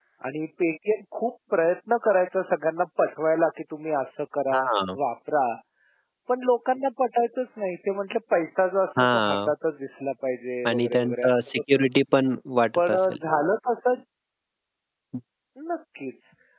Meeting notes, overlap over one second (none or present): present